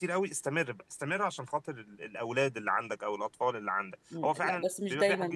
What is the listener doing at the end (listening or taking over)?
taking over